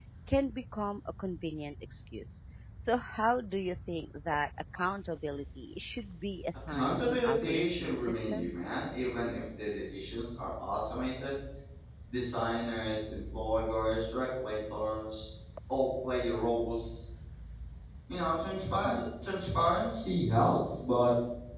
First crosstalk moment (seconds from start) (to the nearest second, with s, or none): 7 s